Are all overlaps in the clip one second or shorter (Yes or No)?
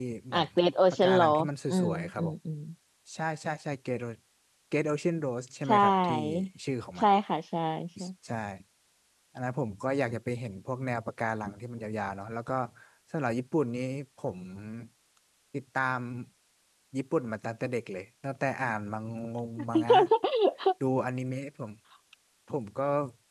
No